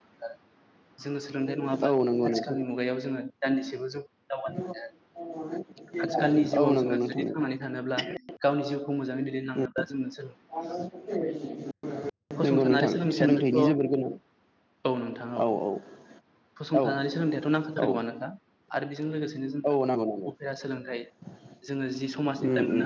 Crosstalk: present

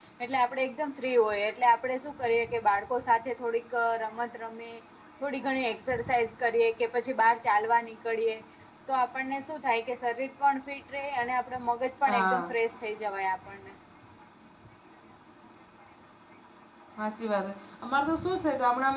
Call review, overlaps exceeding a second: none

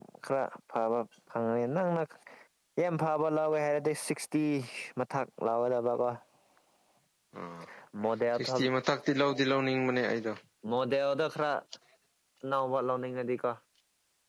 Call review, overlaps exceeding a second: none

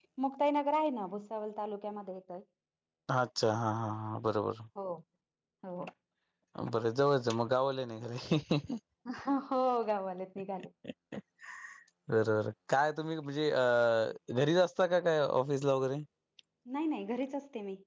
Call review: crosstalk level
none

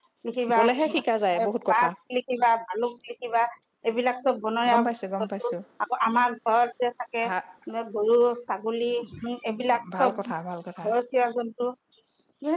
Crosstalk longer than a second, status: none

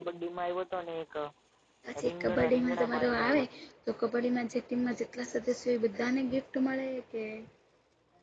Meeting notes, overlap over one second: present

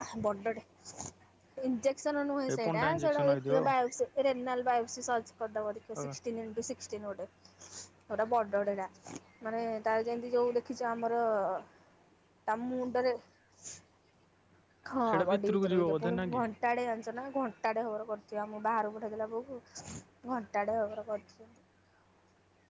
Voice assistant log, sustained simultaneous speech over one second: present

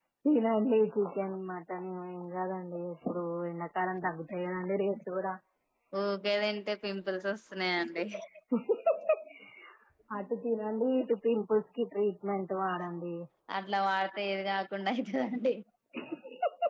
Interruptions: none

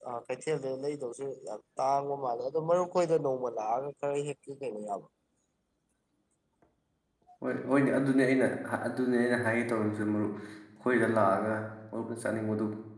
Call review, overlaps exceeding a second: none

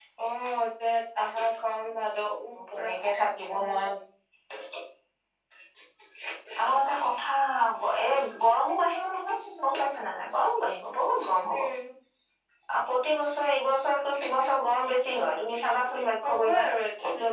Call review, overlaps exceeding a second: none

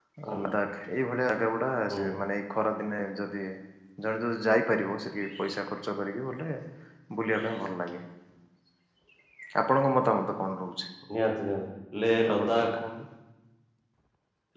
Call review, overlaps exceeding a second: none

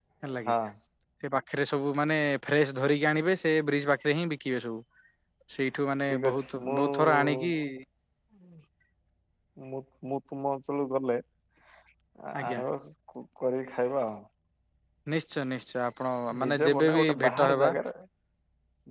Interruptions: present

